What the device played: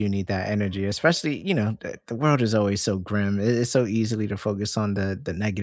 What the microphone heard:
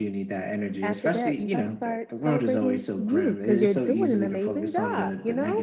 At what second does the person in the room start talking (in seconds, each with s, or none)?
0.8 s